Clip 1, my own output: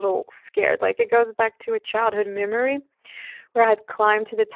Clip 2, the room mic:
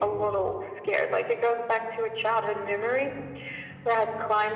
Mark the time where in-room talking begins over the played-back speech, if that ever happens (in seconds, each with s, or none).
none